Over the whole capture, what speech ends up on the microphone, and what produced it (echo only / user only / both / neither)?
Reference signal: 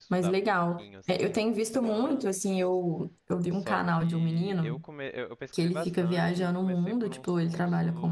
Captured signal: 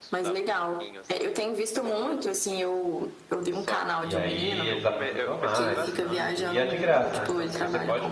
both